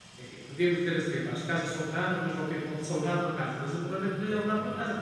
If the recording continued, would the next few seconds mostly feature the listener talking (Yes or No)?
No